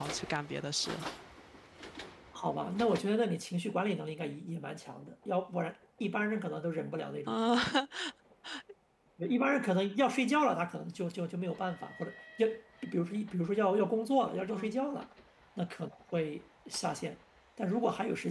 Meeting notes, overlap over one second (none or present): none